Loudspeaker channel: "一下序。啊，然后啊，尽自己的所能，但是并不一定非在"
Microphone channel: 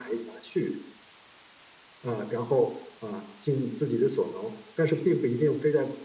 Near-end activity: none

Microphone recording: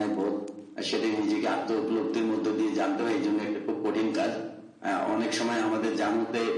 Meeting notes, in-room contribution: none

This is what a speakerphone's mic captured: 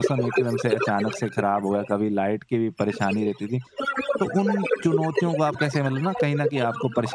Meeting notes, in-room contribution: present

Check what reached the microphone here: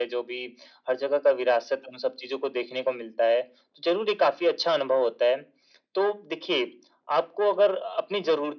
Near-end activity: none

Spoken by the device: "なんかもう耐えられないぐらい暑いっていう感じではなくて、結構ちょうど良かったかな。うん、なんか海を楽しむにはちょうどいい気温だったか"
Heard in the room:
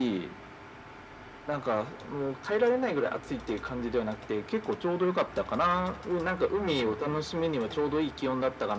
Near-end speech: none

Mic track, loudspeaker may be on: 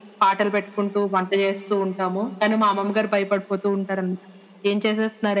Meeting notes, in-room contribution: none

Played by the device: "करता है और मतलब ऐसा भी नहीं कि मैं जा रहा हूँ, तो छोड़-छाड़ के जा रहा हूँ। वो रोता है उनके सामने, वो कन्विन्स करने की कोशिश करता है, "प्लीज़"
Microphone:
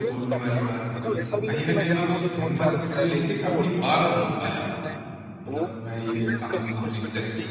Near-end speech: present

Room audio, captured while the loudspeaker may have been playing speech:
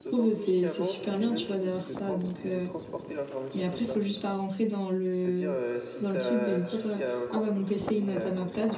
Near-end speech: present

